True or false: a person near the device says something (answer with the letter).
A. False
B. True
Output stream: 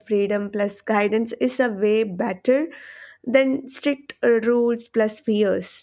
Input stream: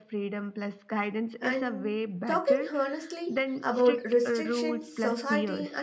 B